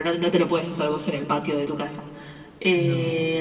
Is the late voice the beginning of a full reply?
No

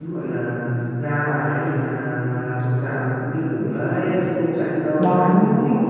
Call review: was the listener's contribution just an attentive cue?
Yes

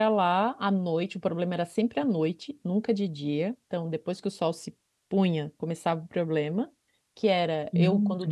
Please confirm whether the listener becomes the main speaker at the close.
No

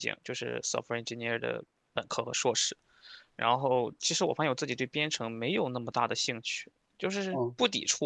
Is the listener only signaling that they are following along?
Yes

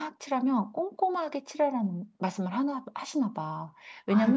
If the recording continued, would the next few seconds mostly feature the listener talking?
No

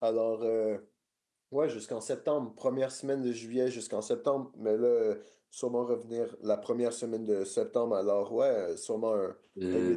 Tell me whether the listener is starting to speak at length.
Yes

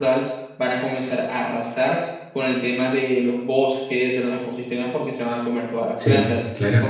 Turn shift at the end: No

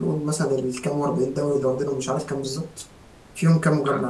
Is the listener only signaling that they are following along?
Yes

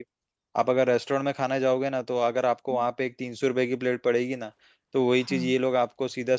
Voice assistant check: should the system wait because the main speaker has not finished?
Yes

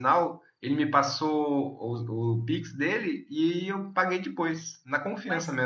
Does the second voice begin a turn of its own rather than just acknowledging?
Yes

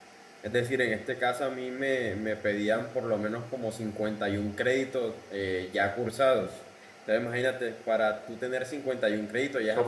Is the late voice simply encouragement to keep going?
No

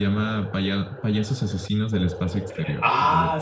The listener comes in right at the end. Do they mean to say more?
Yes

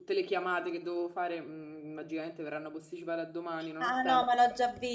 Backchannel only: No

